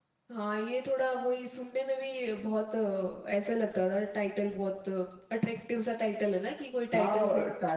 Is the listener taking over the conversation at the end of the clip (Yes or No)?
Yes